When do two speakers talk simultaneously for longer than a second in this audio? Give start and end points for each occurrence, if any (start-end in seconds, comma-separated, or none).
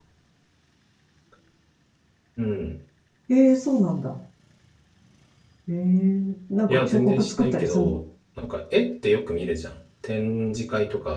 6.7-8.0